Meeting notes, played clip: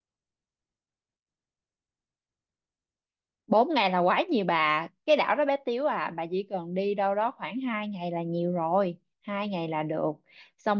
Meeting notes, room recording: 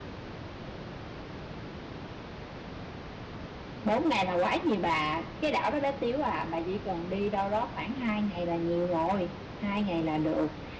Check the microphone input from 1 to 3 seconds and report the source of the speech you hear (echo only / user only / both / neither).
neither